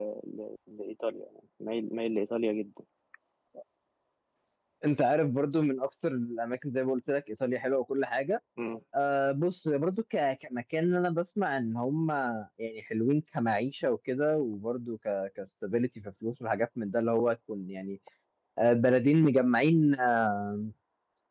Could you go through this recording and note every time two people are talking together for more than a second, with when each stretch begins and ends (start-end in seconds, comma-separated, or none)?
none